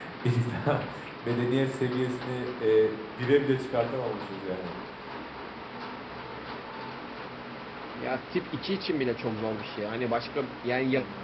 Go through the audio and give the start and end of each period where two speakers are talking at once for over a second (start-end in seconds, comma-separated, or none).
none